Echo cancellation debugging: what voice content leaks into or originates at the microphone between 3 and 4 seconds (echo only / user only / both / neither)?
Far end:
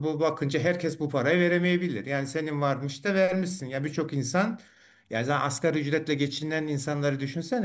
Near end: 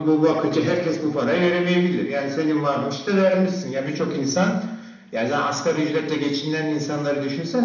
echo only